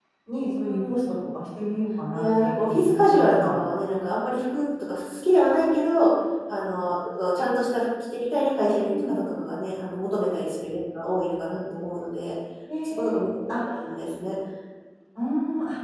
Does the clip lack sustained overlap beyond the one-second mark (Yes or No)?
No